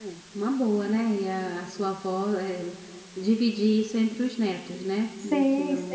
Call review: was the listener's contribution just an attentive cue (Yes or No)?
No